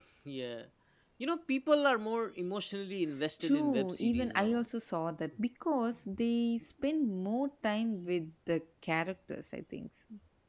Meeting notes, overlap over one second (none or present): present